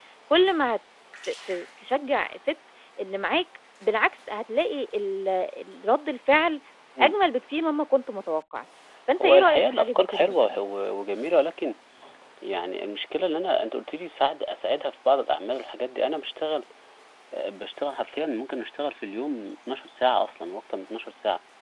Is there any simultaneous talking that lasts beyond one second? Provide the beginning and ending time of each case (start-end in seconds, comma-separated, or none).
9.2-10.6